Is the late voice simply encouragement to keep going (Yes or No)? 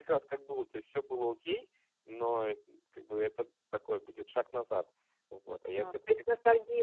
No